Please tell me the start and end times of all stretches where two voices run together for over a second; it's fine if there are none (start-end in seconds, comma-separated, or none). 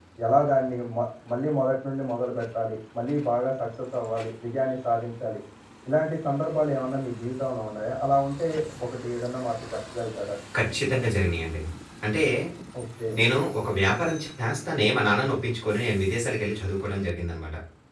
none